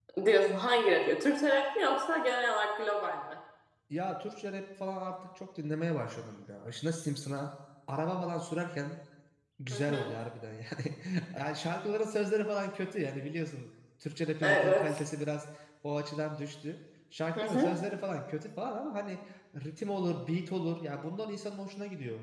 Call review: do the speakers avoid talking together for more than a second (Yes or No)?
Yes